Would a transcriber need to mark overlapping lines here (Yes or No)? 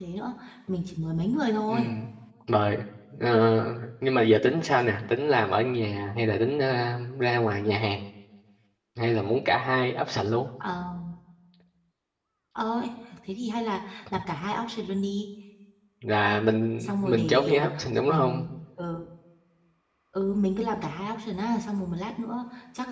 Yes